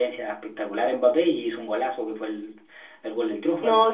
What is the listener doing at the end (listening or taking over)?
taking over